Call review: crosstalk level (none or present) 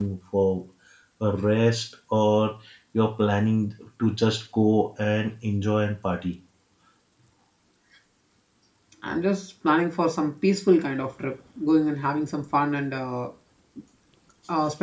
none